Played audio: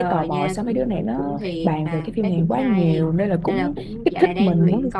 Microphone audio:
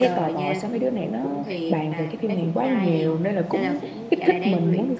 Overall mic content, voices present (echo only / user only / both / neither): echo only